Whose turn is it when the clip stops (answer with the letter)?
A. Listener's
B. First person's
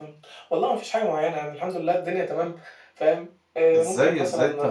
A